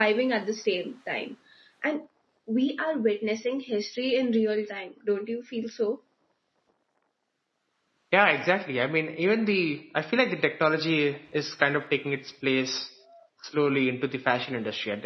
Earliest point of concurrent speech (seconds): none

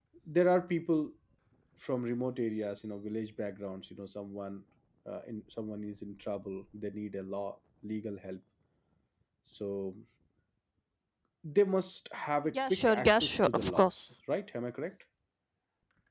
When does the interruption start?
12 s

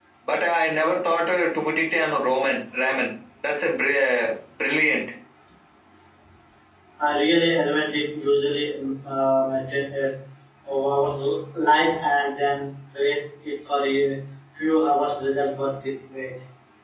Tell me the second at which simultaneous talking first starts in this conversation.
none

